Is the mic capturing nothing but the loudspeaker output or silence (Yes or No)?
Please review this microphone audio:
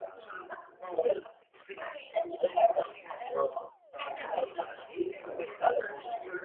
No